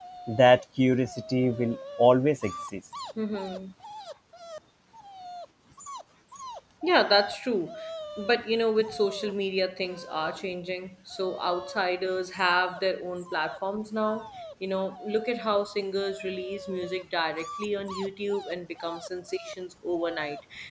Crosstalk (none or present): none